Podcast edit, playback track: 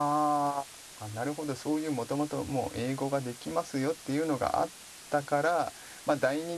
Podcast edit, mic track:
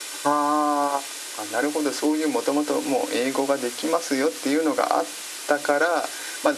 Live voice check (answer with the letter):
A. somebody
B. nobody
B